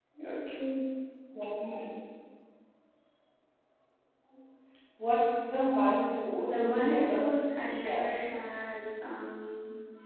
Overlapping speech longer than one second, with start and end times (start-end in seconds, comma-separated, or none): 6.5-8.1